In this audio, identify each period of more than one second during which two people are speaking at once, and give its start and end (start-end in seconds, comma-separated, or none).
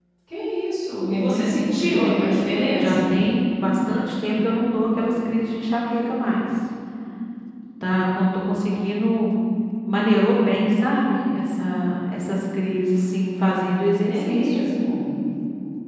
1.0-2.3